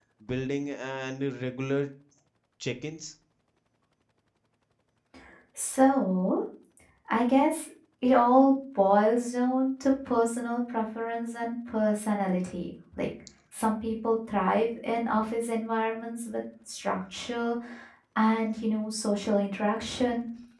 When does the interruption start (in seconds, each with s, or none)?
none